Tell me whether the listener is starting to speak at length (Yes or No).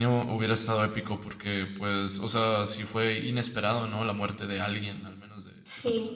Yes